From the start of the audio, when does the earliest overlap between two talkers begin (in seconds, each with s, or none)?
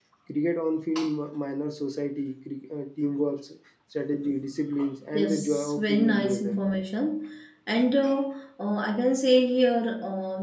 5.1 s